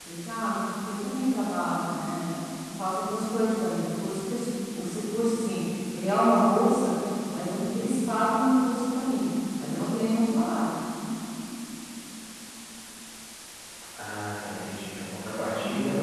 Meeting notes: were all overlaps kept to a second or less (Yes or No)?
Yes